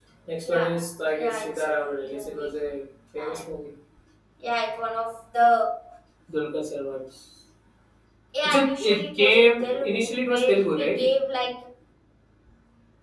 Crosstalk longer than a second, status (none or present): present